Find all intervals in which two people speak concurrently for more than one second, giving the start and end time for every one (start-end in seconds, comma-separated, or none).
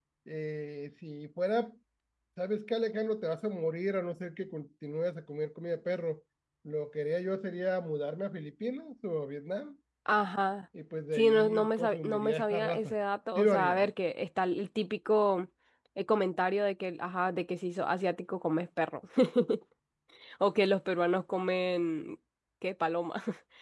11.1-12.9